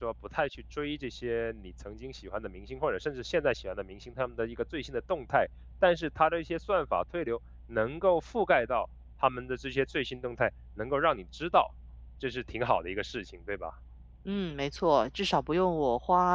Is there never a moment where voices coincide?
Yes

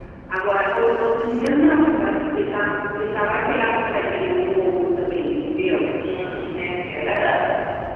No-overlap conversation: Yes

